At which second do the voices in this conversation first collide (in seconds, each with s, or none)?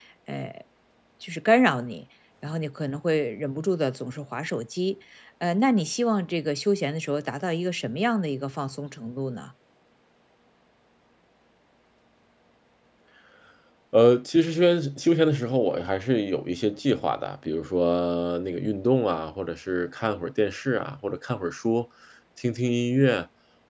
none